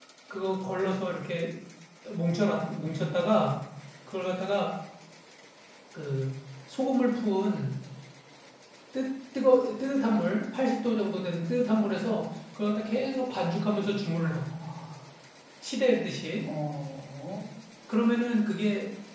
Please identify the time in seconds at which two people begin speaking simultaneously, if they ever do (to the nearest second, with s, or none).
none